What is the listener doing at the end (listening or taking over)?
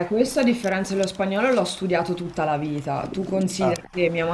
listening